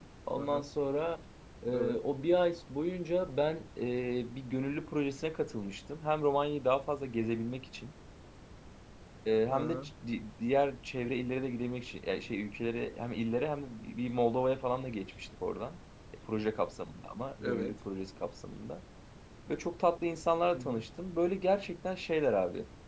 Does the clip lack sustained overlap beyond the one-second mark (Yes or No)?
Yes